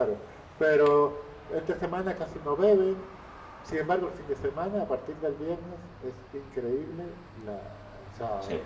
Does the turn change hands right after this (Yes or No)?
Yes